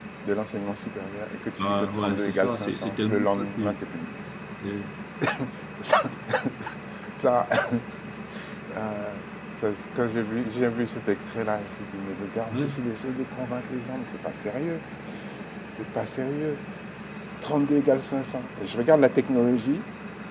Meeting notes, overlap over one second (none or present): present